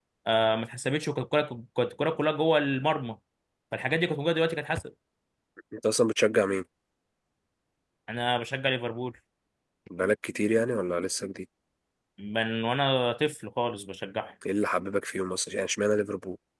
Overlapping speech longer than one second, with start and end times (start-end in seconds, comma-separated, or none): none